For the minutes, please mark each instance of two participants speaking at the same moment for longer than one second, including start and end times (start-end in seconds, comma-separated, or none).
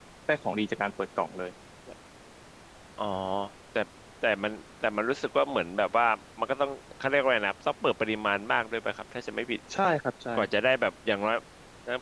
none